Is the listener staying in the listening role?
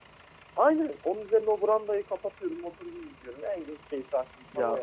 No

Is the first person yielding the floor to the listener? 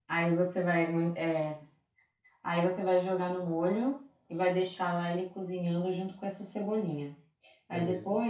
No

